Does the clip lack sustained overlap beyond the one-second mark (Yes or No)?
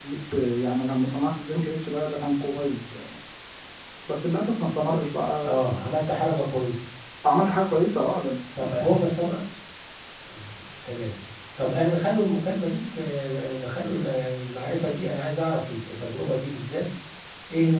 Yes